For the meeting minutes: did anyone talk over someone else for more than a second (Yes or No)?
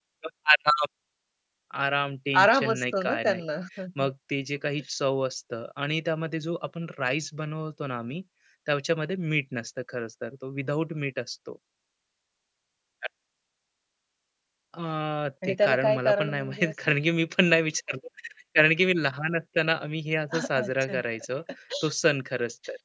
Yes